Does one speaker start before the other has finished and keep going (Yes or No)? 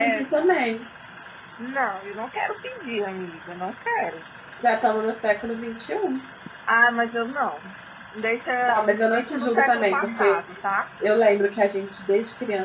Yes